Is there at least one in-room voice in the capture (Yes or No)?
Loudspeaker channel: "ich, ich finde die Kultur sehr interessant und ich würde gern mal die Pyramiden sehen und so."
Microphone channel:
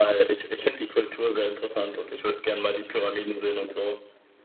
No